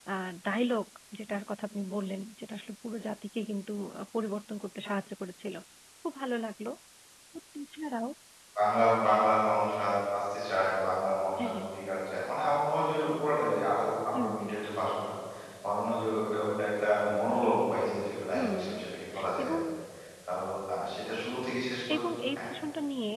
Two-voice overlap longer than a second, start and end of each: none

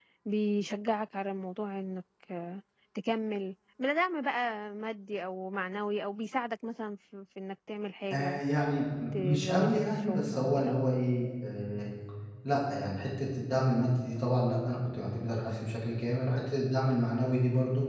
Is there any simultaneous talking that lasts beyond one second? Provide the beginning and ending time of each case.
9.3-10.8

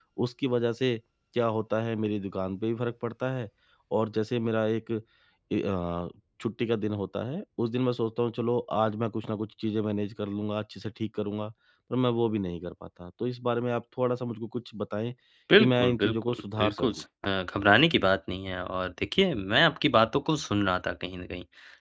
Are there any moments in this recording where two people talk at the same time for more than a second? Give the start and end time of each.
15.6-16.9

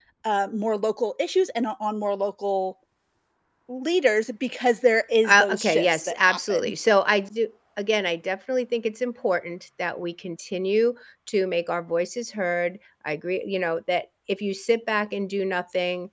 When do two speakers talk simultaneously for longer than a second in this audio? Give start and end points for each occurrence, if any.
5.3-6.7

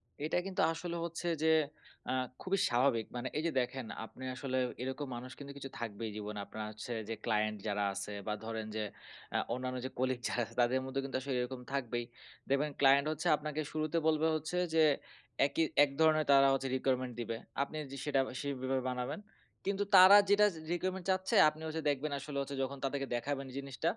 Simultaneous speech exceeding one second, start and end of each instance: none

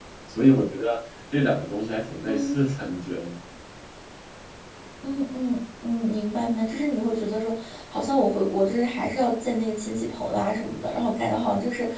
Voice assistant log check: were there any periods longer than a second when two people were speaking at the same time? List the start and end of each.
none

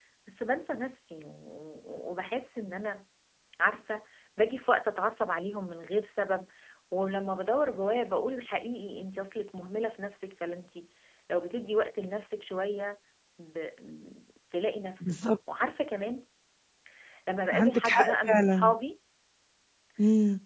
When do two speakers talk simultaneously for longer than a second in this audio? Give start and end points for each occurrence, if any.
17.5-18.7

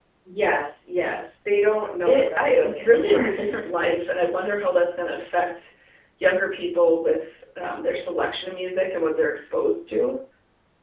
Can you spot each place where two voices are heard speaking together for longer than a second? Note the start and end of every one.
2.1-3.3

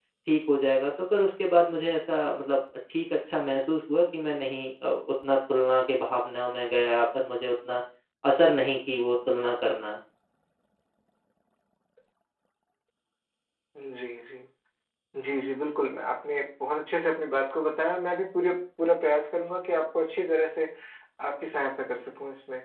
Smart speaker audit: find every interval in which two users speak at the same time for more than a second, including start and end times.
none

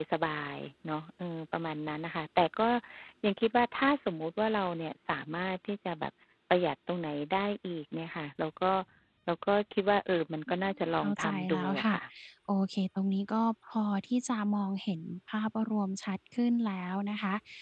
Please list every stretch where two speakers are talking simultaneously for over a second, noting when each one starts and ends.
10.5-11.9

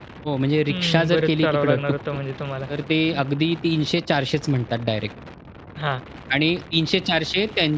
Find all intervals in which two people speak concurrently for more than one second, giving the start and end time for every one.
0.7-2.2

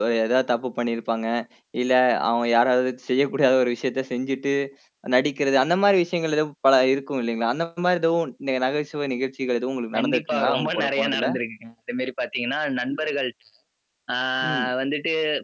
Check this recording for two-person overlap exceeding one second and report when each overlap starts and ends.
9.9-11.2

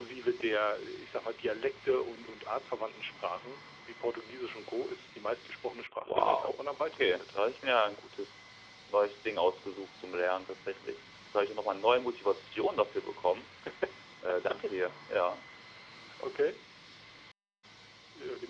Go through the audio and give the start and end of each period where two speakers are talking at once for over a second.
6.0-7.2

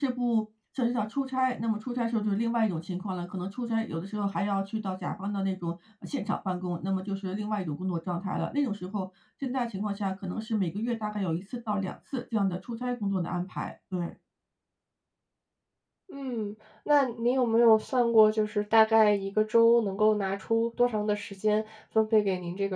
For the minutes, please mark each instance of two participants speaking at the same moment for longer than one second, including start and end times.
none

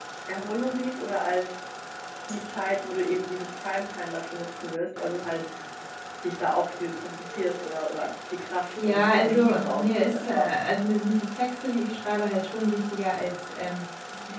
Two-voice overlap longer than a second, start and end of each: 8.7-10.5

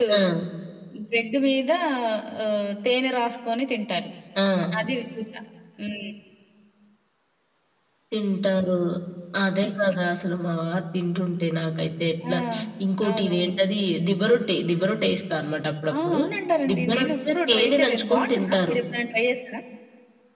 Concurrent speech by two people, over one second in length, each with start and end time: 16.7-18.7

